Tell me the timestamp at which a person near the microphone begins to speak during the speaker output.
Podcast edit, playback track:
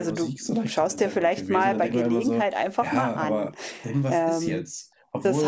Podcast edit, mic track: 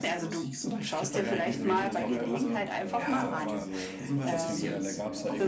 1 s

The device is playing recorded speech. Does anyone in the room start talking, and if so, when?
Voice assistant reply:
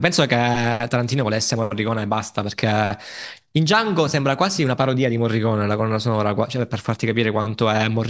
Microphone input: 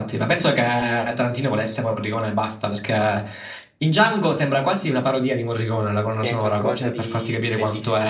6 s

